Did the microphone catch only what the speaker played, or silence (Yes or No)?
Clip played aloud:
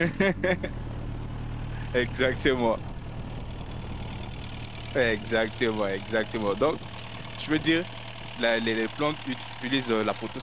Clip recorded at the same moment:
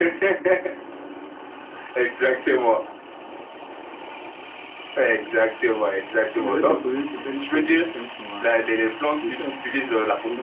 No